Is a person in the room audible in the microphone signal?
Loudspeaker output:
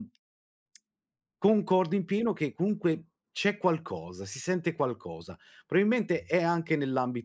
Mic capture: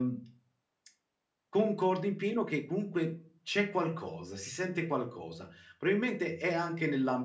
No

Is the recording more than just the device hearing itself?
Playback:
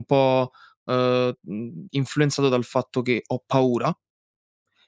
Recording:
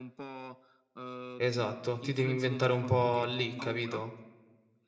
Yes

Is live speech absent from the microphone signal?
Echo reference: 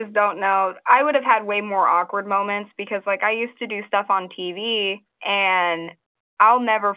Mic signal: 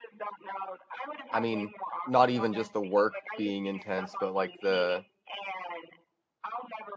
No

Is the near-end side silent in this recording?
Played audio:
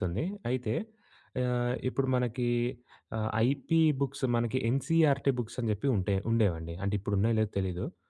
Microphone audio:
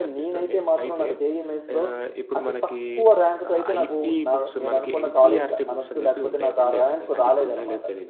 No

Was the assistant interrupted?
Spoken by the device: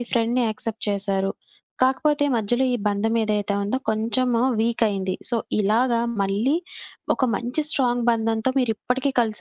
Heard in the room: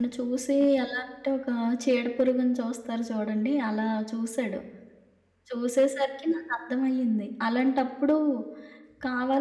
Yes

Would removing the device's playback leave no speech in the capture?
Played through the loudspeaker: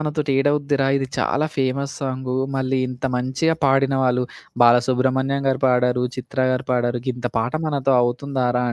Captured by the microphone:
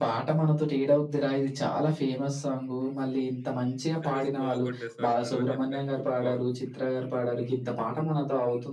No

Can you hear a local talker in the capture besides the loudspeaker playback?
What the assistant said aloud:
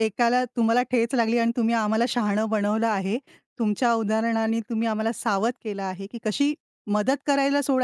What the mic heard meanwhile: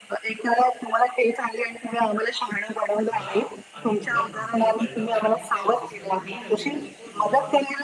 Yes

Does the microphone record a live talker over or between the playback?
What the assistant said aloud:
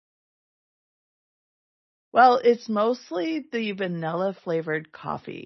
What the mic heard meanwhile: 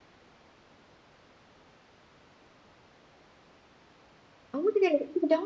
Yes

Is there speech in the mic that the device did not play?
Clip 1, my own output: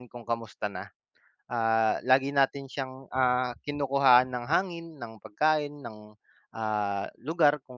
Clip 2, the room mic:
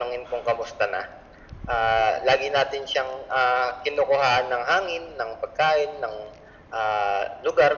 No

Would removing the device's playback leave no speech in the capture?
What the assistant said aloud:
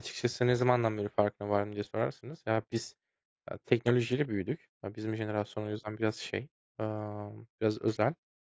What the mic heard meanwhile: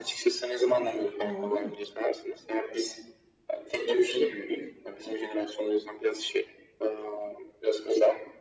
No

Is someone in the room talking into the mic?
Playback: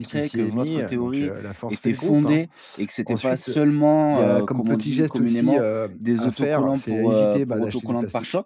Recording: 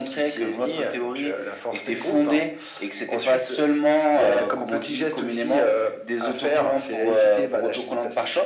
No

